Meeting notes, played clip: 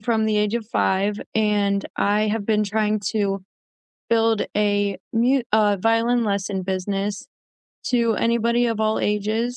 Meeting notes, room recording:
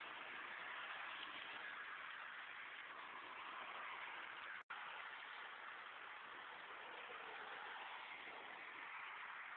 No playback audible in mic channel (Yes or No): Yes